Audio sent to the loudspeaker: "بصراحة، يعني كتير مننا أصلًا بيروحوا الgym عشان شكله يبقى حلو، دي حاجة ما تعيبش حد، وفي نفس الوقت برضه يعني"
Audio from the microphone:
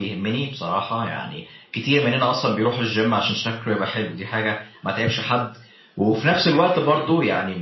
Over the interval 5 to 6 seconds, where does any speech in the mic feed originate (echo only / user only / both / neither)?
echo only